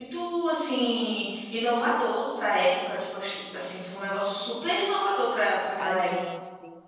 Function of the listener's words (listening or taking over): taking over